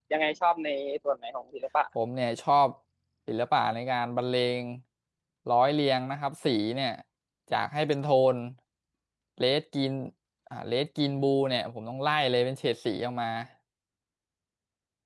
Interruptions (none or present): none